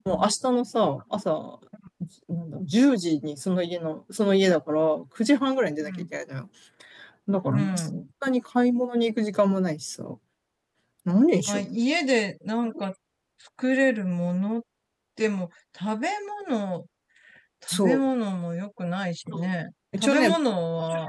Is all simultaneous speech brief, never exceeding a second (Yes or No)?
Yes